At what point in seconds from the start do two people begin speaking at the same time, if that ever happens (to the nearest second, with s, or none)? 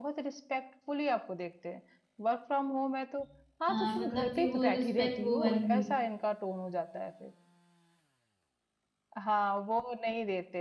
4 s